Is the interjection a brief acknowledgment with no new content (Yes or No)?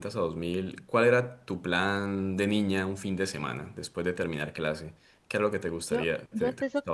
No